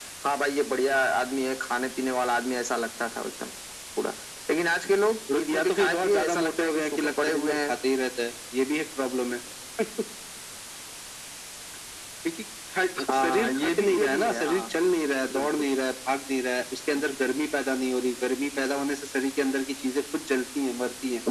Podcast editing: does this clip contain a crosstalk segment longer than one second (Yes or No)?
Yes